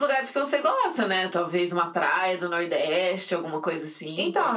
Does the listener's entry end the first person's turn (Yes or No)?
Yes